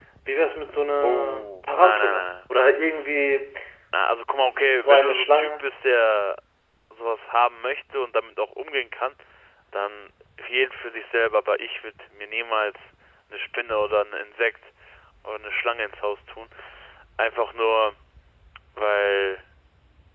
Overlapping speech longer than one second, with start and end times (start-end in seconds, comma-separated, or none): 1.0-2.3, 4.4-5.6